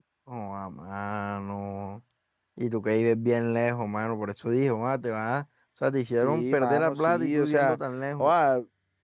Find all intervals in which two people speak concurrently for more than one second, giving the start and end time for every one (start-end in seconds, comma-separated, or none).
6.2-7.8